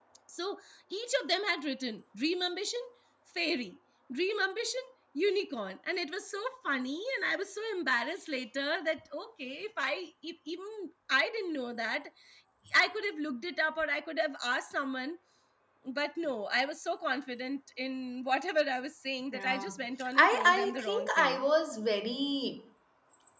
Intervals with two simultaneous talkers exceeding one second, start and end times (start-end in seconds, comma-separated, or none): 20.1-21.5